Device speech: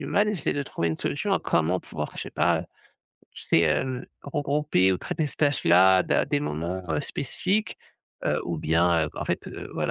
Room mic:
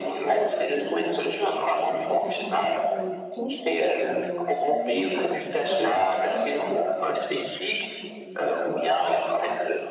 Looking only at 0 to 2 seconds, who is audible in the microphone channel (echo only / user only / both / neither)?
both